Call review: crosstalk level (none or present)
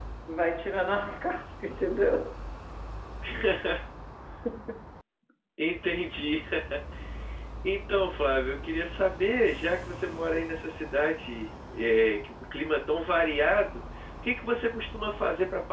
none